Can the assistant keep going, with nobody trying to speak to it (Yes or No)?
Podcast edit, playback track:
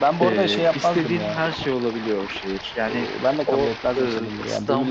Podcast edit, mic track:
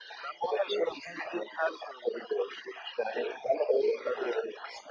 Yes